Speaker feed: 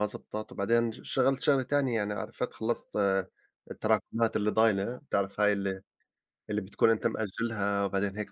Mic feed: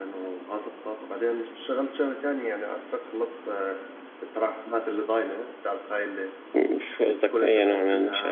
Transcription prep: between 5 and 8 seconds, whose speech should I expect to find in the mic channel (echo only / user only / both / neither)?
both